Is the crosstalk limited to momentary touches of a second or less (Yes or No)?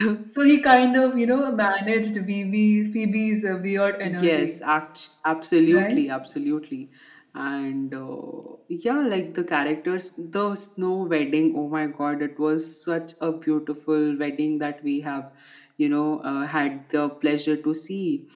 Yes